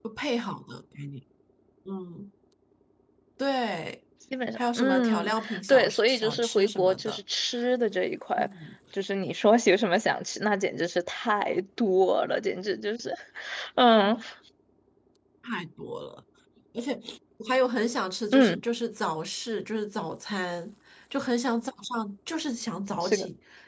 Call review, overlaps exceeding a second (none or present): present